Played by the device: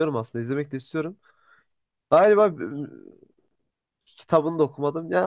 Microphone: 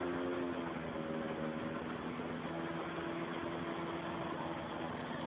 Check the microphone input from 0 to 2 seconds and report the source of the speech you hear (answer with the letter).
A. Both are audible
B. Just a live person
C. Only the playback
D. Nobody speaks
D